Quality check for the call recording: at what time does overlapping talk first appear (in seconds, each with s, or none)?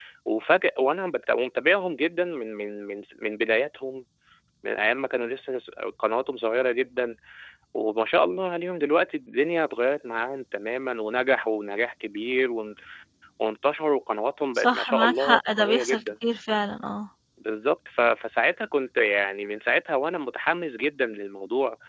14.6 s